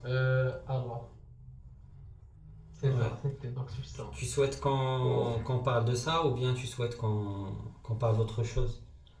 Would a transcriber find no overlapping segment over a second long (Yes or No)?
Yes